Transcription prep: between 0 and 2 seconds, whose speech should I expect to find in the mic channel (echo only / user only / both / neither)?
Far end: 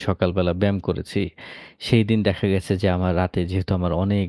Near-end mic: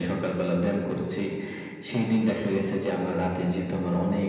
echo only